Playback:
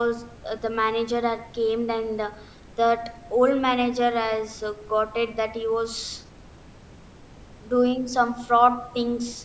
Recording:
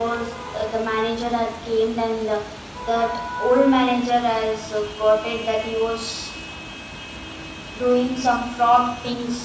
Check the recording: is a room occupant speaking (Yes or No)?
No